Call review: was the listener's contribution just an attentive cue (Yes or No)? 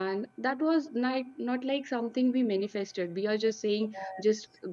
Yes